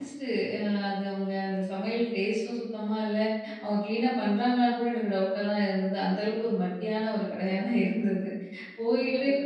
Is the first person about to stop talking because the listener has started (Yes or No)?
No